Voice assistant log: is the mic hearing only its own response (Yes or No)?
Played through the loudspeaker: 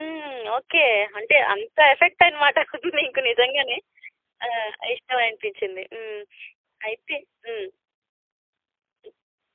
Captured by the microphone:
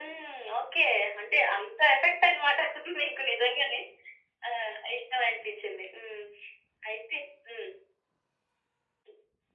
Yes